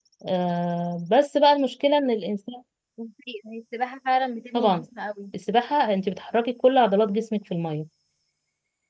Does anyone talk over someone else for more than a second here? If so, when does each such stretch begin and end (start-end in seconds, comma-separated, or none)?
none